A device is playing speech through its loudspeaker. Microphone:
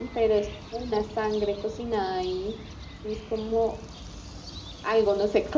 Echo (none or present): none